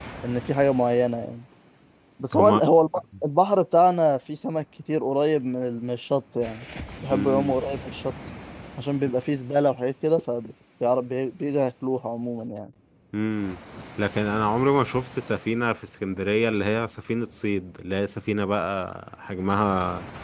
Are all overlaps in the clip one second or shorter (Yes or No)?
Yes